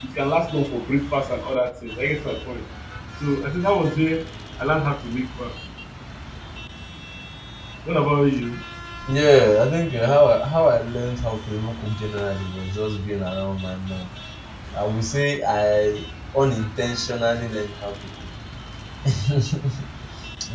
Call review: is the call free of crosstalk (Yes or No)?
Yes